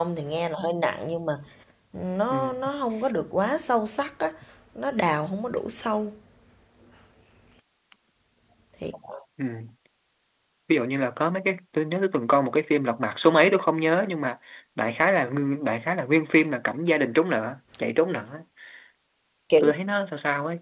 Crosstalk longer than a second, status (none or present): none